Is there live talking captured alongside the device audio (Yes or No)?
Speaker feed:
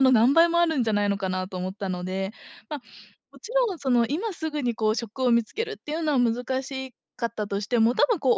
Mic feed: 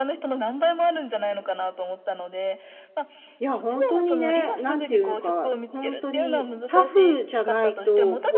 Yes